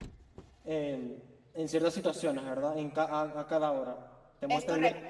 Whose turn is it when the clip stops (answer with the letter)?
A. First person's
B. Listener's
A